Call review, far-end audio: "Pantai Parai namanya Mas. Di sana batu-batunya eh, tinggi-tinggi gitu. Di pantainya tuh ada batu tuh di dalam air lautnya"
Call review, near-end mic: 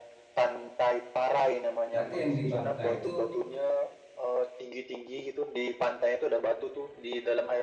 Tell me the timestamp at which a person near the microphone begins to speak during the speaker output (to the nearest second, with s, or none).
2 s